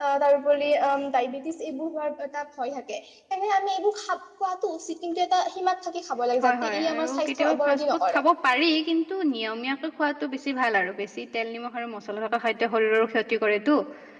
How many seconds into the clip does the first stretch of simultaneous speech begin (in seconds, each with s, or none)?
6.4 s